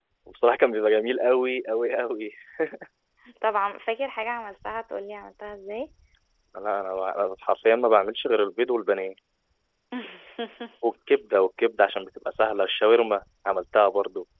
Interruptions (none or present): none